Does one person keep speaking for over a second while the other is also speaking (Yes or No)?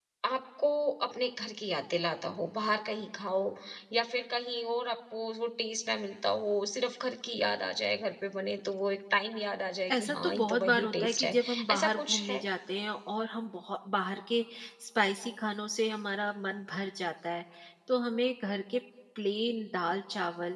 Yes